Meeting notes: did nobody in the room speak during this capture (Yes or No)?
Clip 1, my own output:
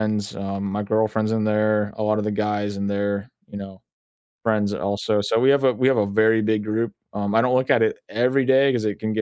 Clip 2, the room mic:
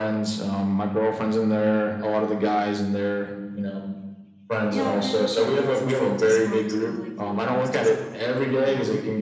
No